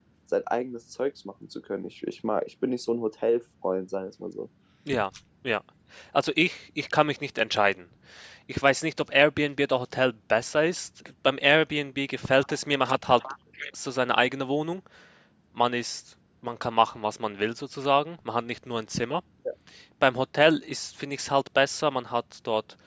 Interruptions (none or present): none